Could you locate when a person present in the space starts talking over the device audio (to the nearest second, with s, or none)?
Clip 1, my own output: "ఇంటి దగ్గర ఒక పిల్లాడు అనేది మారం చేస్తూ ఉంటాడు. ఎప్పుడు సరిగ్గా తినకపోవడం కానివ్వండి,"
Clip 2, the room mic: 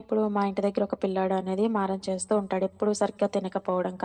none